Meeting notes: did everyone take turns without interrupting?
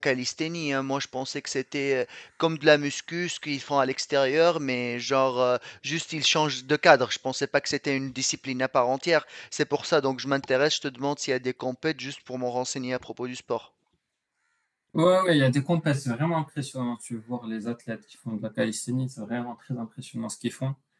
Yes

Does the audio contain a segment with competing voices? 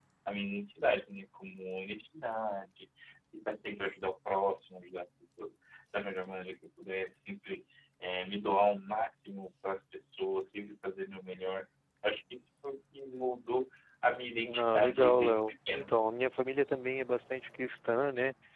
Yes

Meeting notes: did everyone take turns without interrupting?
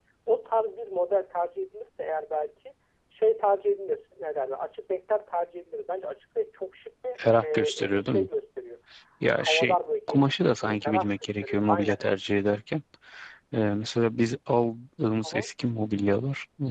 No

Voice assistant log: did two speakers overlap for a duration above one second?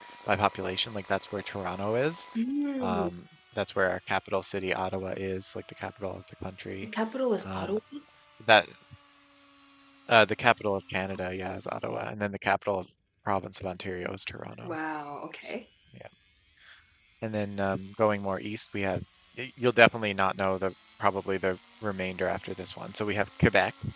No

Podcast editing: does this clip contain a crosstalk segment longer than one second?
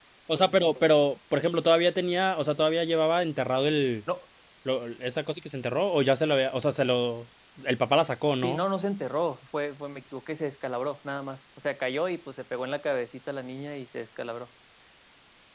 No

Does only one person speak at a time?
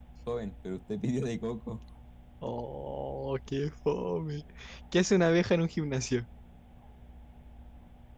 Yes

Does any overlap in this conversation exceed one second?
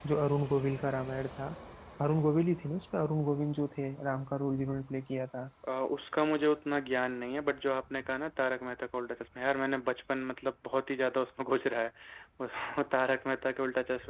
No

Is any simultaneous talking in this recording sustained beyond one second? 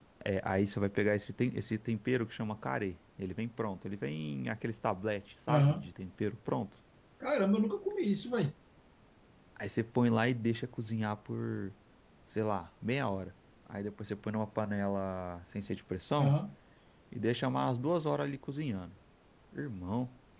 No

